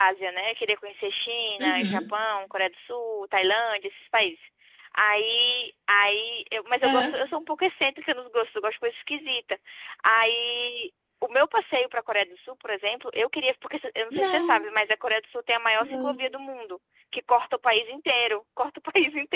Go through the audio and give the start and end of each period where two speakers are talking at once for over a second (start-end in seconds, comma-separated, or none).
none